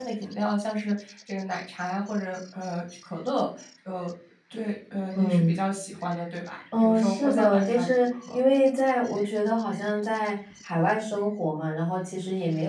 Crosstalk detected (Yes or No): Yes